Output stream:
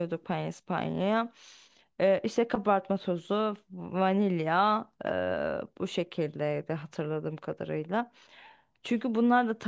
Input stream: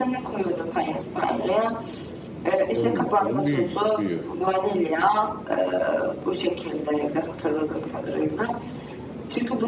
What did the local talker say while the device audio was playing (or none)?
Onun gibi. Onun büyüğü. Büyüğü.